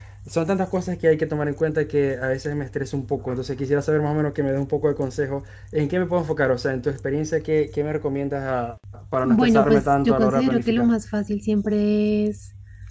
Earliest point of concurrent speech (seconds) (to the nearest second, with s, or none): 9 s